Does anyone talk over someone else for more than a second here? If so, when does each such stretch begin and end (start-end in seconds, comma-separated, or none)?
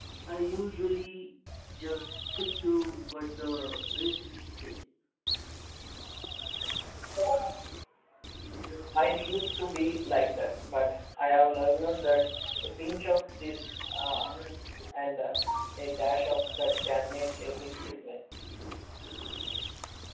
none